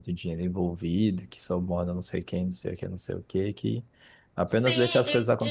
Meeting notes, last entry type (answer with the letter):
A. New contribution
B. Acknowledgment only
A